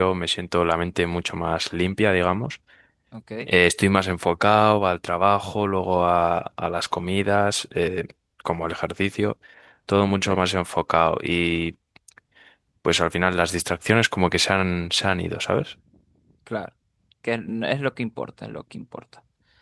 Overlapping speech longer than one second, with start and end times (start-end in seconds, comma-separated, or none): none